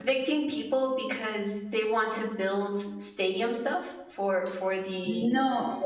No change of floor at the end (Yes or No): No